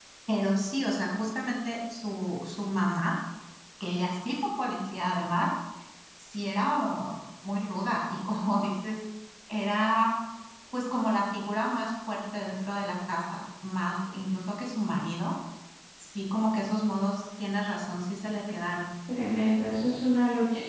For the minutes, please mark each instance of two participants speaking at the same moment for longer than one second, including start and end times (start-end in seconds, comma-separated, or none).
none